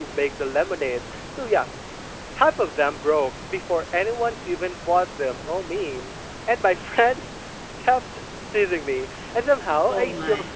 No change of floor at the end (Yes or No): Yes